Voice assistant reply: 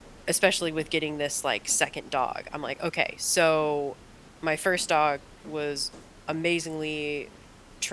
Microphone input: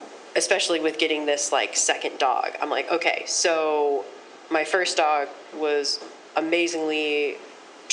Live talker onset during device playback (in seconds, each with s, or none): none